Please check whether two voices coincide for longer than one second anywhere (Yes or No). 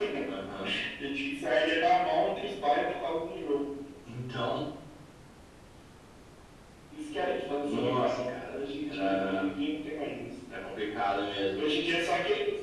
Yes